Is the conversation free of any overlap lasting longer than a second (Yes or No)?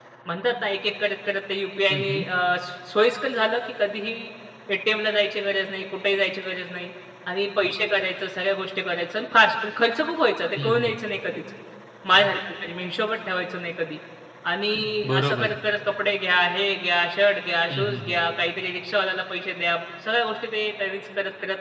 Yes